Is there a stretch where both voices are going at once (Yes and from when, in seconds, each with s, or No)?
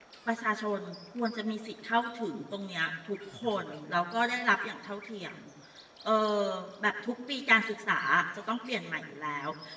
No